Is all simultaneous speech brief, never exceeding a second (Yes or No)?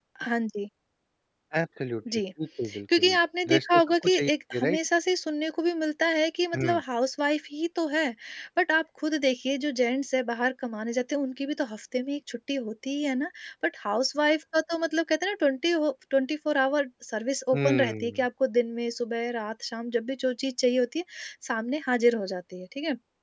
No